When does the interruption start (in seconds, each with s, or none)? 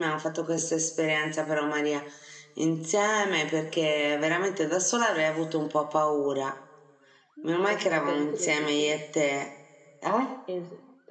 7.7 s